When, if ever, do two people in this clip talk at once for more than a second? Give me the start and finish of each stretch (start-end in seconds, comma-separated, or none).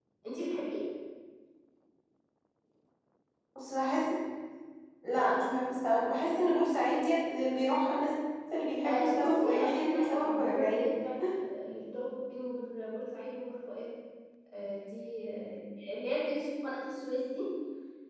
8.8-10.9